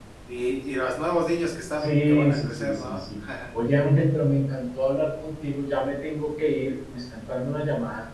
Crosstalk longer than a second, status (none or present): present